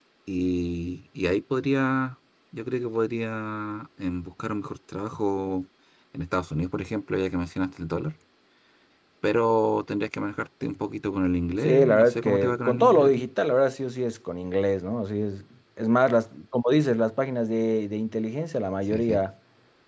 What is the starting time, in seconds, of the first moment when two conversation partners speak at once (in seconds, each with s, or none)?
11.6 s